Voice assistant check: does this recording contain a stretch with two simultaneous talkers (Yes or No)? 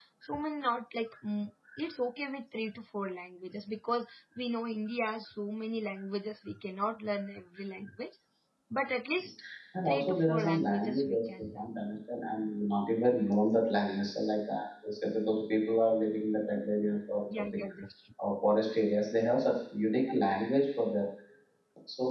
Yes